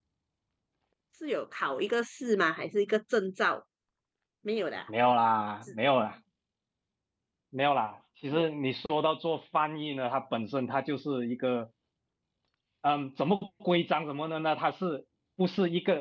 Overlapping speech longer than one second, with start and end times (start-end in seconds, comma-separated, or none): none